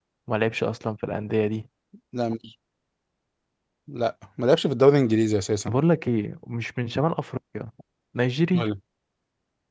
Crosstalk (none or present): none